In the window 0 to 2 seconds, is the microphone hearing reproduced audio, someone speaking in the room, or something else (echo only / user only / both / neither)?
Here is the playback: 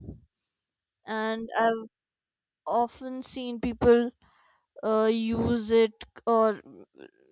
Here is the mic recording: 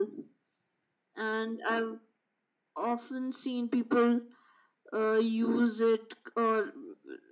echo only